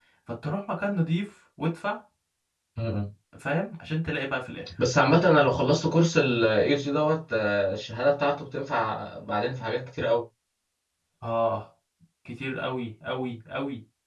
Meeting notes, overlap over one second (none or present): none